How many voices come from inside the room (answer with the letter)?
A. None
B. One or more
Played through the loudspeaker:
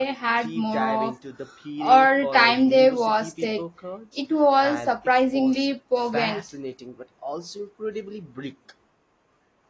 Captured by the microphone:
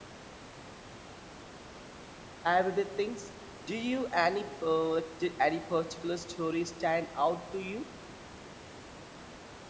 B